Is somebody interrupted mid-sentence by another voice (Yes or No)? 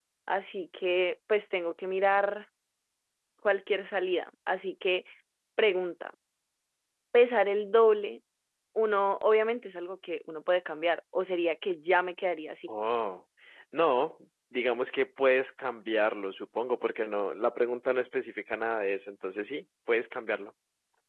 No